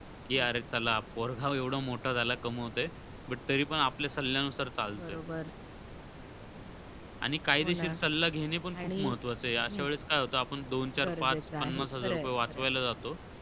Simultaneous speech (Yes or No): Yes